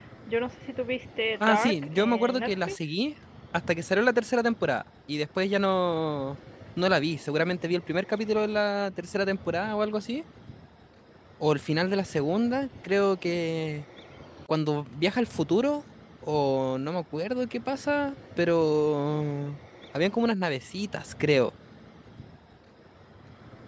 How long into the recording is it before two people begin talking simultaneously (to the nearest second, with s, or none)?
1 s